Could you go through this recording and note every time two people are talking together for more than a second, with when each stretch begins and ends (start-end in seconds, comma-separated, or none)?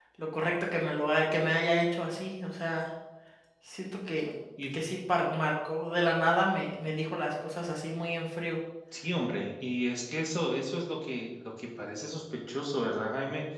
none